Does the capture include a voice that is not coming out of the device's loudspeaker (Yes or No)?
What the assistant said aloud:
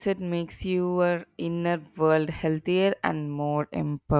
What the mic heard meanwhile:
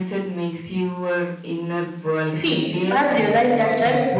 Yes